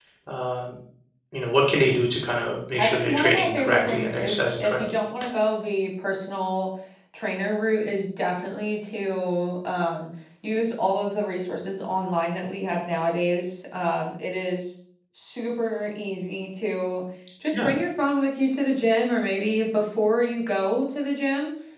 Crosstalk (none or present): present